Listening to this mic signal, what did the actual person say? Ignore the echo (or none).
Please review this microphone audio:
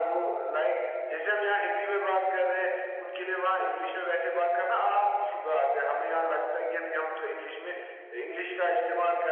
none